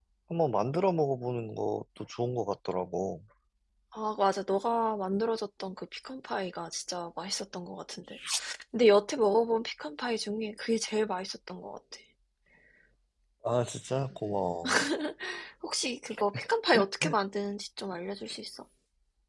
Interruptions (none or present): none